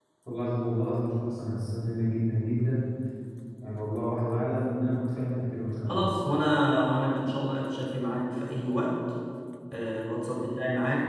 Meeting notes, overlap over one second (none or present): none